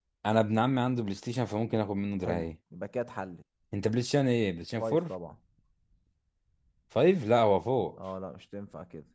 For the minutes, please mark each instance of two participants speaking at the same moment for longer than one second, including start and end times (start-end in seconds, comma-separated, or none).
none